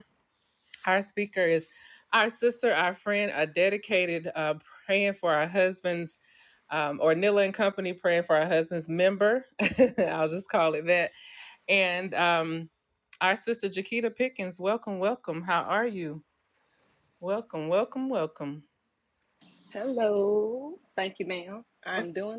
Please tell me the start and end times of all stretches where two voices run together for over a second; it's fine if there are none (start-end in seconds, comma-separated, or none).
none